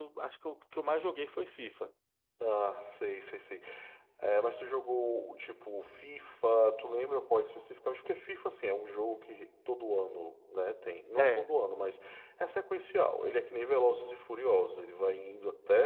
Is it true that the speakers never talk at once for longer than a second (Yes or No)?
Yes